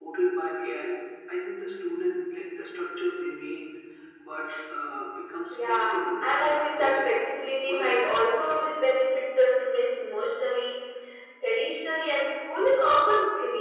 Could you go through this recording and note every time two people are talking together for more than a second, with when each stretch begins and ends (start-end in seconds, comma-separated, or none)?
5.5-7.1